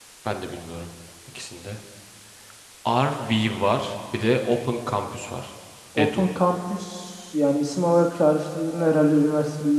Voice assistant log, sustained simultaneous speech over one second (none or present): none